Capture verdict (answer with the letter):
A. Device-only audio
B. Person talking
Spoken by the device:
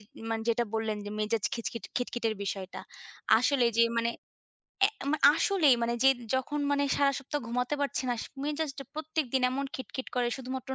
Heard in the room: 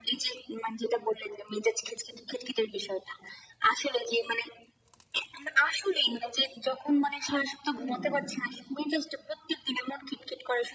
B